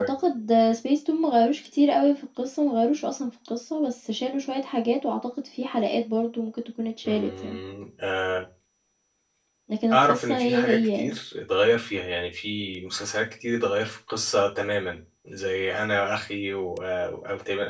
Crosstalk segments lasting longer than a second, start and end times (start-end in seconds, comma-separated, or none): 9.9-11.2